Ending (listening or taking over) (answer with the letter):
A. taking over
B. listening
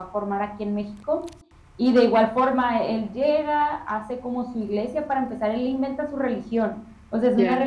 B